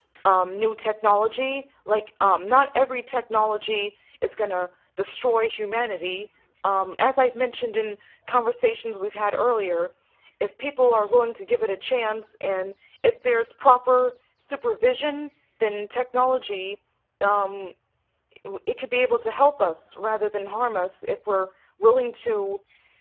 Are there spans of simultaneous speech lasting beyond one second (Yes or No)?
No